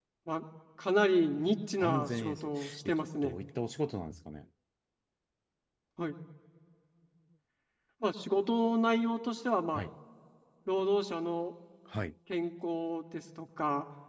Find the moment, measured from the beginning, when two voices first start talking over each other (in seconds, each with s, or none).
1.8 s